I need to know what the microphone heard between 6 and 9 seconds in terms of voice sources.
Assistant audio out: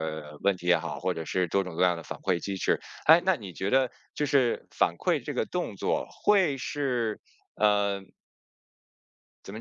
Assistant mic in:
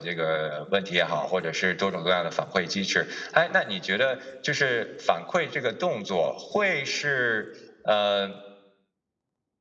echo only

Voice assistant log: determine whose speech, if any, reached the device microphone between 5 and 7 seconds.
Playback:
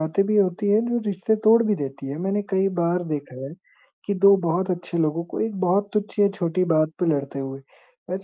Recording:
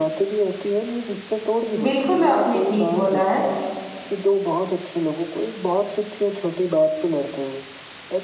echo only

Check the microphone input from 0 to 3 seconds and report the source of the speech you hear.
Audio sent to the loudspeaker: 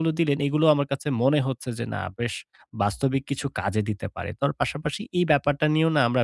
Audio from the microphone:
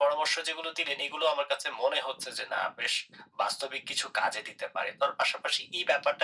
echo only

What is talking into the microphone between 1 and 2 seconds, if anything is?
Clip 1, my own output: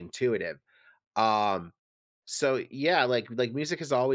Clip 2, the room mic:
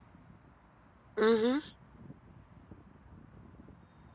user only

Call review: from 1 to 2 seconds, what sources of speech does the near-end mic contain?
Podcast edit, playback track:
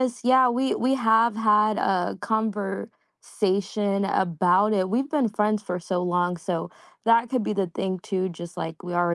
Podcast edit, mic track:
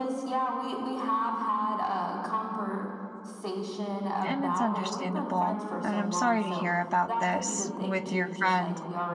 echo only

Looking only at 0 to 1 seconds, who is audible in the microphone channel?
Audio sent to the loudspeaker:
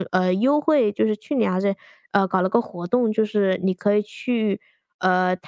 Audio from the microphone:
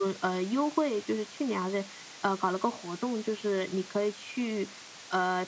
echo only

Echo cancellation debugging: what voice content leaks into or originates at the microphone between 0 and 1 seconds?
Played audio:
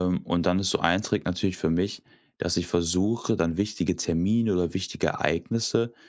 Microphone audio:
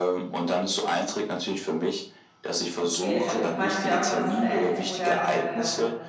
echo only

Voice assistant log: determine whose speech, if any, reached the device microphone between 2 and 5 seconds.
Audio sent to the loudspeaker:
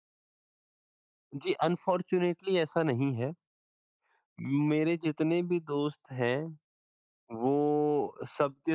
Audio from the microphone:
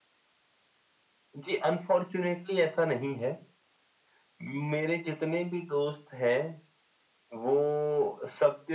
echo only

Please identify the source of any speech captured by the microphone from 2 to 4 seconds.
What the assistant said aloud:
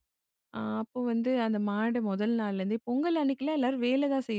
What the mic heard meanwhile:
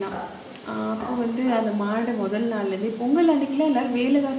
echo only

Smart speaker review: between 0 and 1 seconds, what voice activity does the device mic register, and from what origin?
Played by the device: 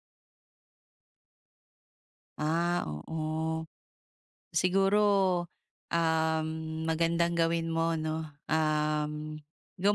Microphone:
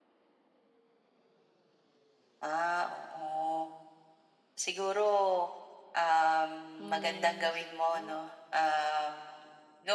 neither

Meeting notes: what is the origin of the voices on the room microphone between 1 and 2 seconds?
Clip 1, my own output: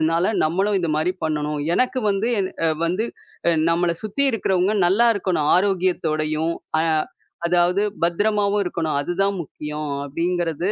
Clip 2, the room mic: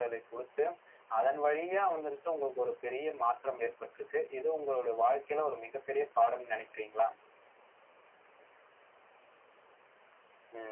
user only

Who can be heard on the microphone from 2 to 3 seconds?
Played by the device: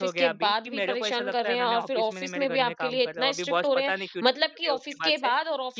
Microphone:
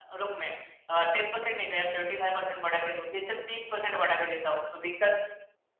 user only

